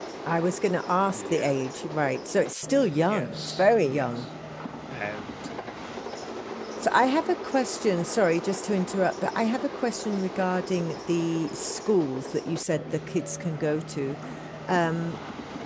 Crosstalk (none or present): present